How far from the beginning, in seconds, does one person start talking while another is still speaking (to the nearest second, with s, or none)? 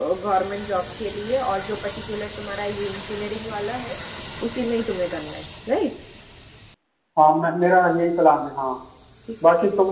none